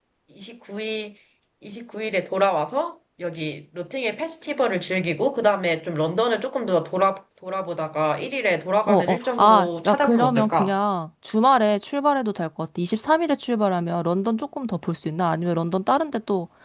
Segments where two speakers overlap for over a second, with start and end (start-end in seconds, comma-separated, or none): 8.9-10.7